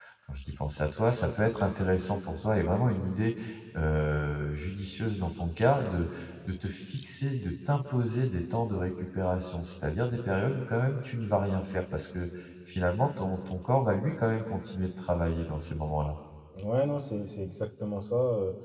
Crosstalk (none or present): none